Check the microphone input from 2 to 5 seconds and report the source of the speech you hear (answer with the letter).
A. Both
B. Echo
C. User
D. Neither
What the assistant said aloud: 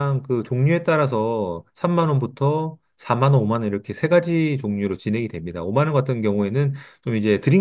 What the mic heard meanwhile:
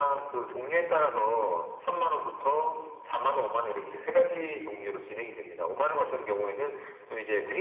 B